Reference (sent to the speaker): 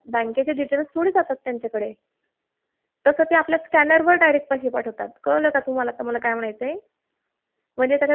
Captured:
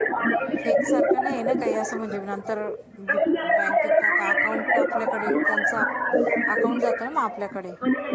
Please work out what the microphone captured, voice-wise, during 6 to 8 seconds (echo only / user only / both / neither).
both